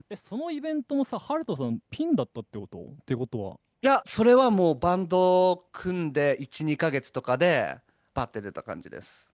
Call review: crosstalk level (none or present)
none